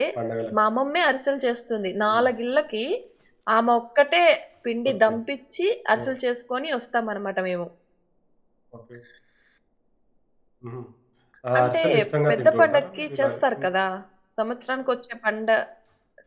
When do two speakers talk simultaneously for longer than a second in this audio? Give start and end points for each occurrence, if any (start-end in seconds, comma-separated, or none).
12.3-13.7